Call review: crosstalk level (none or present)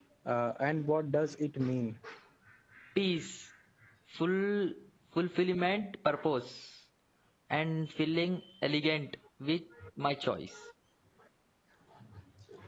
none